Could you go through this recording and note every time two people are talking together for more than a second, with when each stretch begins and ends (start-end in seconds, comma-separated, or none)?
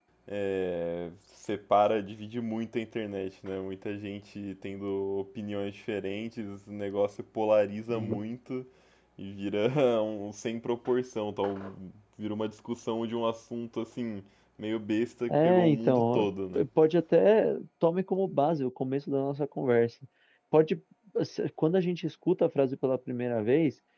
15.3-16.6